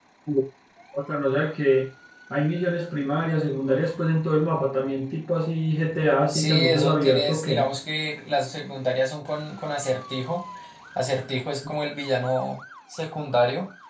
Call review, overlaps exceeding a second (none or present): present